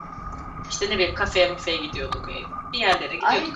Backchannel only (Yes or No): No